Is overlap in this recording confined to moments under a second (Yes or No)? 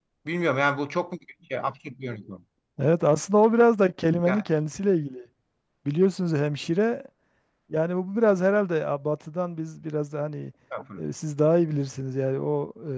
Yes